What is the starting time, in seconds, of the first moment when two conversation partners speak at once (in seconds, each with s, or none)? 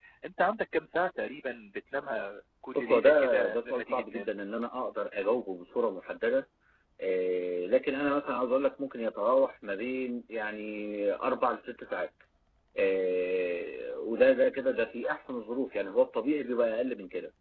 2.7 s